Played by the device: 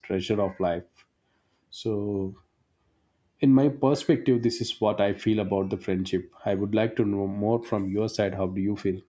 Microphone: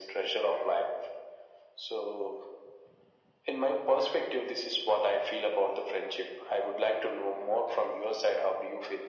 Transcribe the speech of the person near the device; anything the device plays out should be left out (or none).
none